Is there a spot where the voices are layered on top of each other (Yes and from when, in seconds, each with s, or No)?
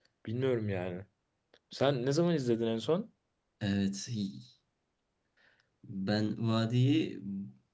No